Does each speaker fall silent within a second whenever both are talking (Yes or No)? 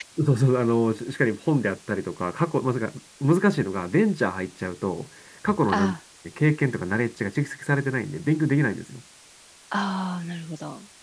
Yes